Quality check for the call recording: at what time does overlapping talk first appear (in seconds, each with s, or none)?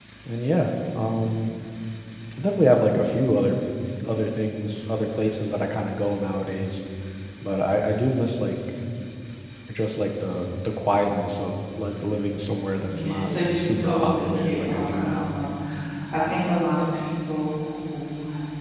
12.9 s